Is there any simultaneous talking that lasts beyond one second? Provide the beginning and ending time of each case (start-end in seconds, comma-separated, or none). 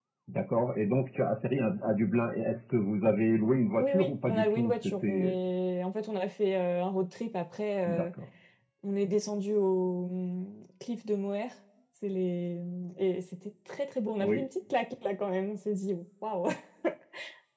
3.8-5.3